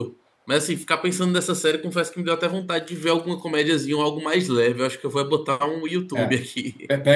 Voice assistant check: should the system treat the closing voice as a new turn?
Yes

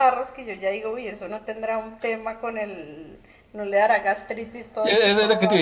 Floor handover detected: Yes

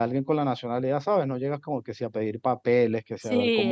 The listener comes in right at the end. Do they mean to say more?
Yes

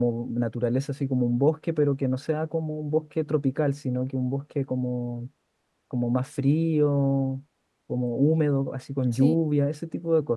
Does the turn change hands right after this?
No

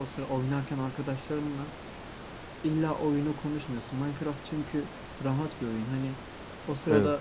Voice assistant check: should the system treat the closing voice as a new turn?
No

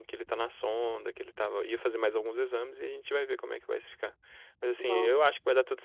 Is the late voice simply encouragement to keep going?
Yes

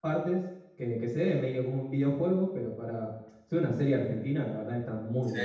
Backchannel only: No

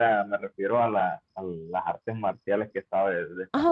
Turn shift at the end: Yes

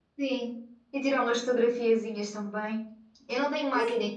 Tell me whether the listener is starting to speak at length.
No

